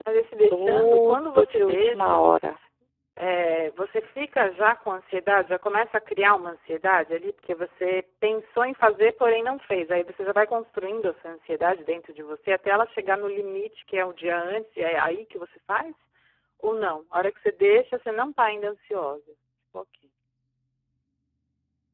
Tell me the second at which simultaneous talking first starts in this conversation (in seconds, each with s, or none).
0.5 s